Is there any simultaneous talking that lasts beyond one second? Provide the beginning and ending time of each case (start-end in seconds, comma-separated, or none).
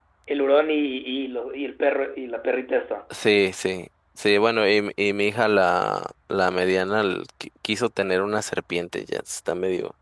none